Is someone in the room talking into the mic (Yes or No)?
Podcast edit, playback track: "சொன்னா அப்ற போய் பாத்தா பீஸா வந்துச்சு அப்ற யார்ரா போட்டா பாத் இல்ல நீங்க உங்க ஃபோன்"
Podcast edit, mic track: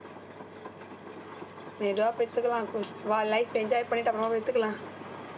Yes